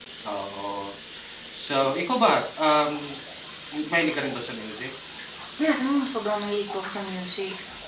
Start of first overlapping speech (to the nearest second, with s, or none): none